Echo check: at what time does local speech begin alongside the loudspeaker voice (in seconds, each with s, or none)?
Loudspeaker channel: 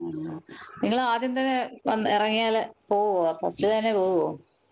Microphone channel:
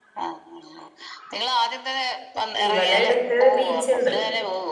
2.7 s